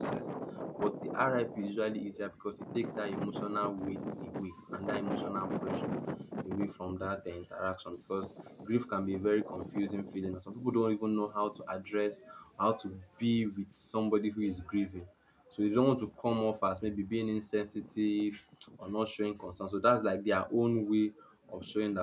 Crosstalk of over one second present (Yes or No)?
No